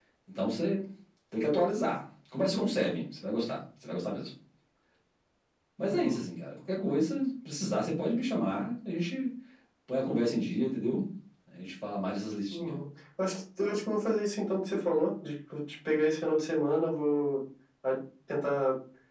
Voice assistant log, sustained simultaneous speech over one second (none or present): none